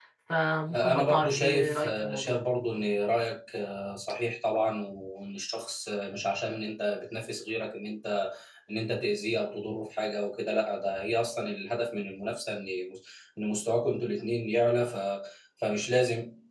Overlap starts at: 0.7 s

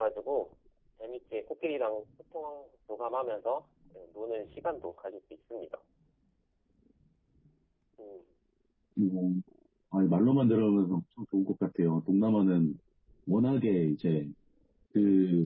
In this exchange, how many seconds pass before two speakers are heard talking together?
none

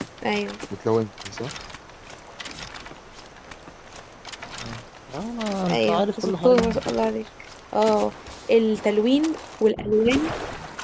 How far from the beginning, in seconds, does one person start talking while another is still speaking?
5.7 s

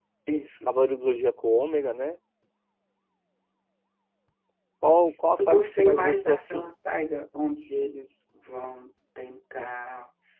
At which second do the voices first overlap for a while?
5.4 s

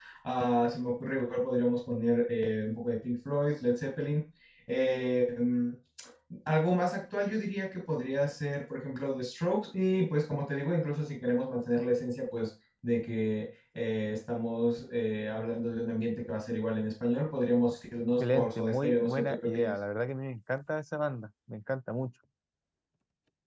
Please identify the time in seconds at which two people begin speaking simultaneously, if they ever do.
18.2 s

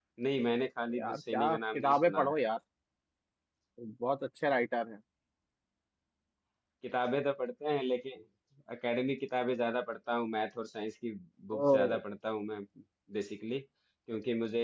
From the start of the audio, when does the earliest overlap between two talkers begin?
0.9 s

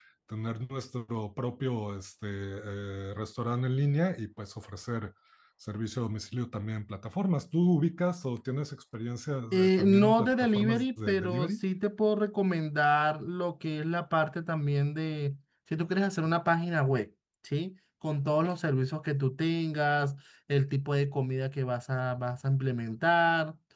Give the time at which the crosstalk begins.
9.5 s

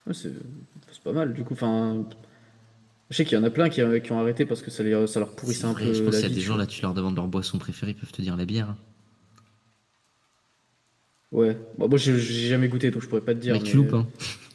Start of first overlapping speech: 5.4 s

